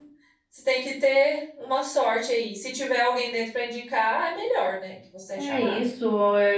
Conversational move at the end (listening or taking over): taking over